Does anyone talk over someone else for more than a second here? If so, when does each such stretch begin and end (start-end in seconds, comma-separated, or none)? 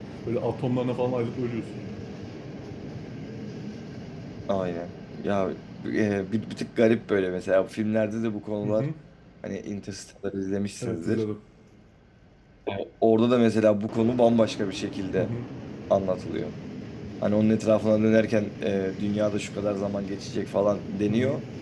none